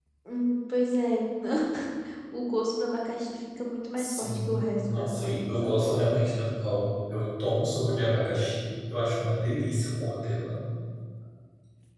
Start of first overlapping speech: 4.0 s

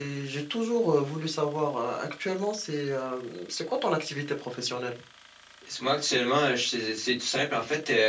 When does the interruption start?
none

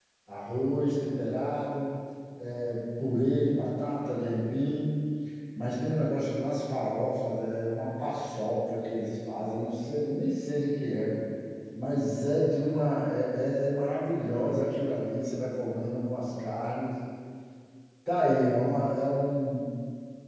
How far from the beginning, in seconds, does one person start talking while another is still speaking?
none

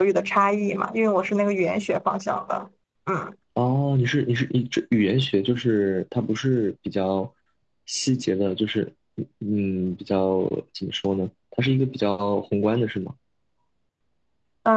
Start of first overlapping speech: none

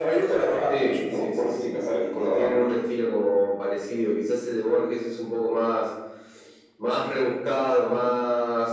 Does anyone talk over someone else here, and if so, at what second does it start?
0.7 s

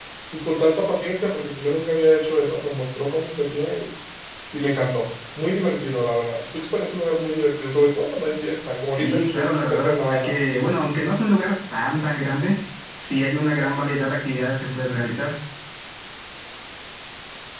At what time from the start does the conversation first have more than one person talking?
8.9 s

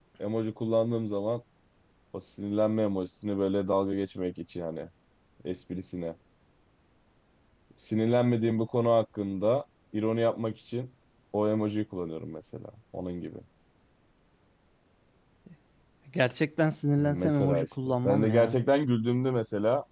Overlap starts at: 17.0 s

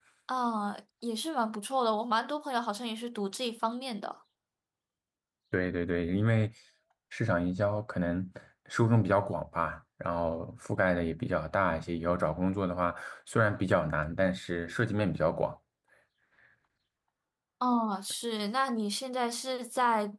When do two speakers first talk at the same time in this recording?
none

